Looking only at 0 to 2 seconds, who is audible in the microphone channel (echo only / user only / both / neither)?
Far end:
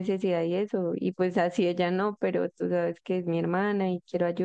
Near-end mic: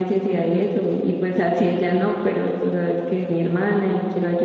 echo only